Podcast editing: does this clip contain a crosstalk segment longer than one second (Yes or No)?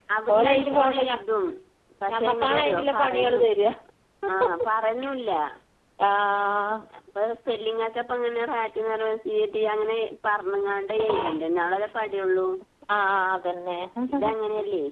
Yes